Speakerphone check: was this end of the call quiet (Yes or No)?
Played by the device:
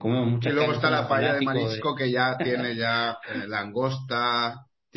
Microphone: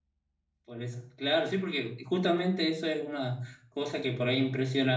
No